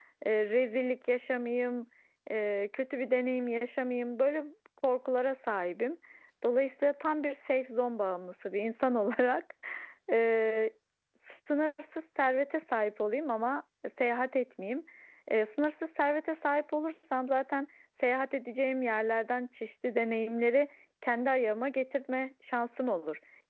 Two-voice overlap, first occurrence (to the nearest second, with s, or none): none